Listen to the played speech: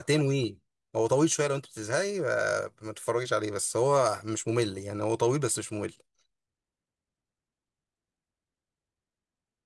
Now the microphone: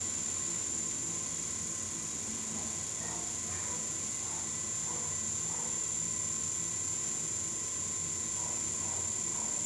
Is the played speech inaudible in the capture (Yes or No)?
Yes